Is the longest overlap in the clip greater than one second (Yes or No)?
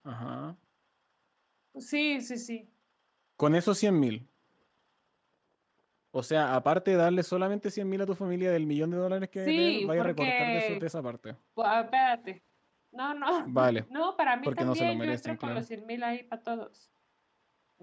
Yes